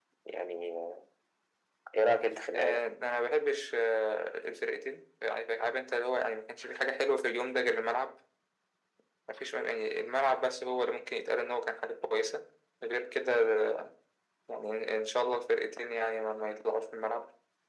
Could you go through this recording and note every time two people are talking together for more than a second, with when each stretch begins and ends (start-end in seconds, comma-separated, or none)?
none